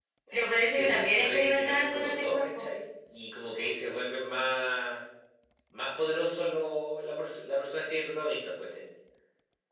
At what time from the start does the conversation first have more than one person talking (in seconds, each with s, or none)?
0.7 s